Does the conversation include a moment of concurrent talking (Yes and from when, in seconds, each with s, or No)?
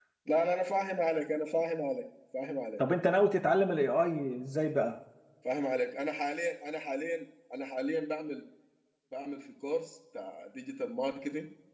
No